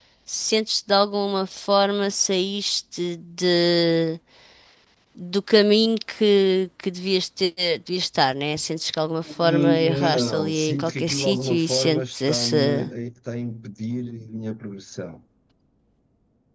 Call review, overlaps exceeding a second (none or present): present